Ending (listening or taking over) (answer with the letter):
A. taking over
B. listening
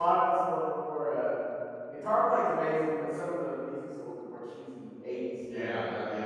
A